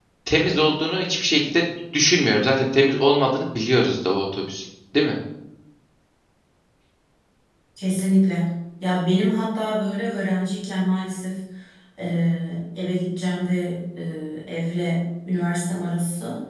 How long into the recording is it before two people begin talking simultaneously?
none

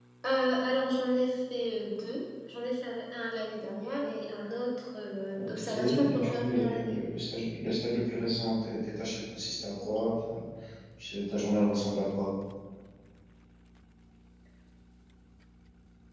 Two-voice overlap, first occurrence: 5.3 s

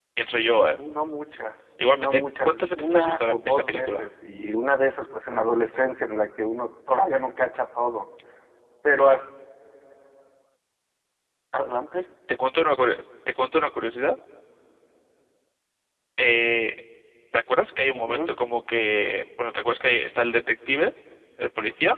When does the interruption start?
1.9 s

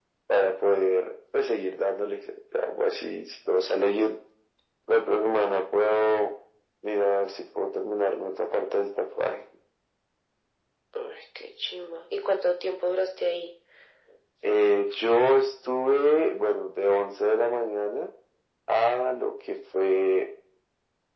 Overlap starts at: none

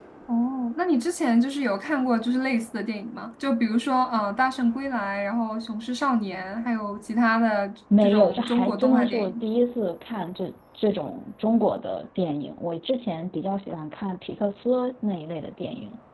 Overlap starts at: 7.9 s

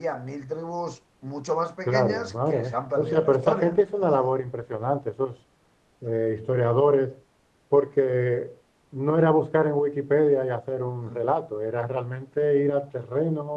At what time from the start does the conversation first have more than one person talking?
1.9 s

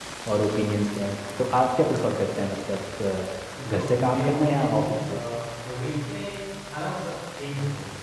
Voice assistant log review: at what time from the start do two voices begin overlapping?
3.5 s

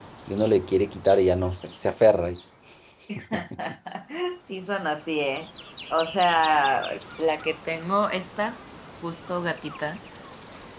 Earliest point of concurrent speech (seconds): none

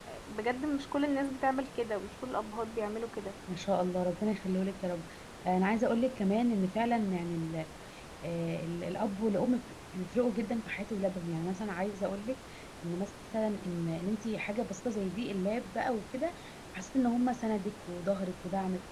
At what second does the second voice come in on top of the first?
none

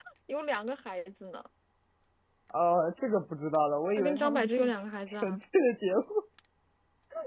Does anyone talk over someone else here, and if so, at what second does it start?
4.0 s

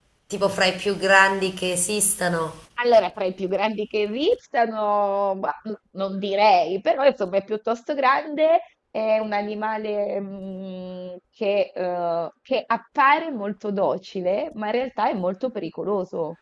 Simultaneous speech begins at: none

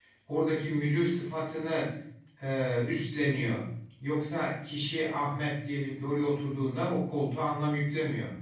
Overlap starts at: none

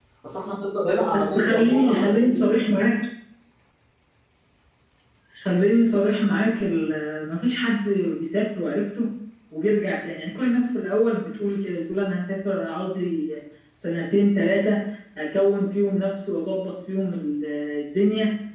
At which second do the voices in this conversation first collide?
1.1 s

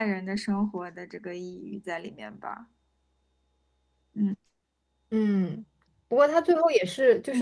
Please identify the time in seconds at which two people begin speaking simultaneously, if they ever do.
none

